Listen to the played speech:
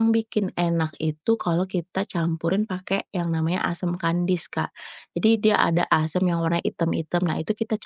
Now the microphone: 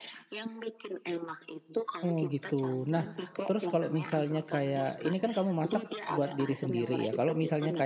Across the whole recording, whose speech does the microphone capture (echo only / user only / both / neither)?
both